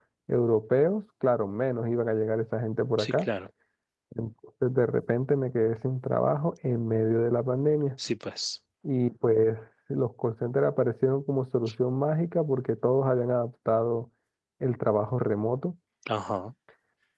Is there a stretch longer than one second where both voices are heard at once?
No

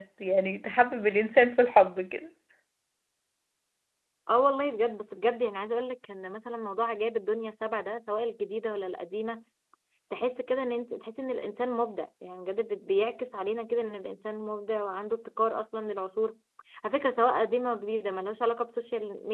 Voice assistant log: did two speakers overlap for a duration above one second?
No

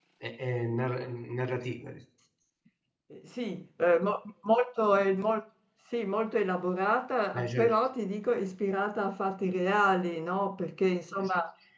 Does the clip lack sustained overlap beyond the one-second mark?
Yes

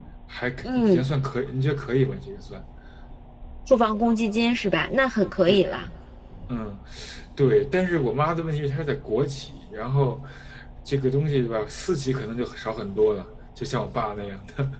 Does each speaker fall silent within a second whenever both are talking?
Yes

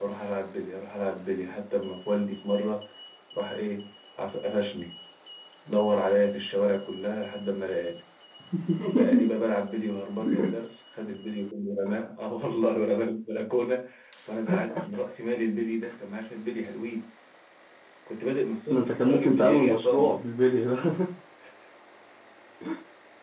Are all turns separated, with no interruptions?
No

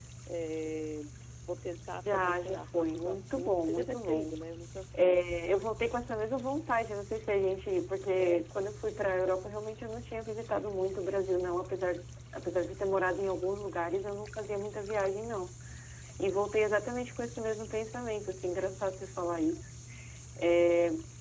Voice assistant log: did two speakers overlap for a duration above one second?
Yes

